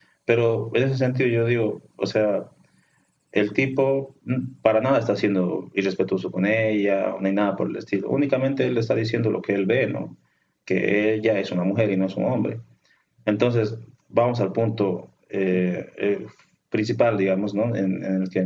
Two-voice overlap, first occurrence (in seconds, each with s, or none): none